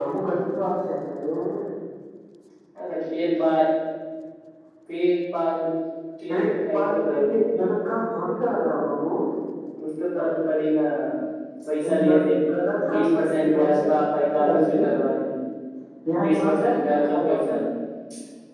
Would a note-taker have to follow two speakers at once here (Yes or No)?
Yes